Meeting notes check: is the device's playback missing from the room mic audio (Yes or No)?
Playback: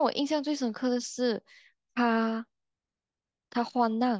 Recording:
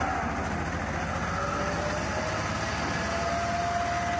Yes